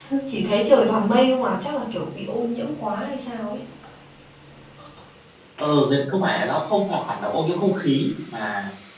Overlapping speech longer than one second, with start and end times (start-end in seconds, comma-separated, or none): none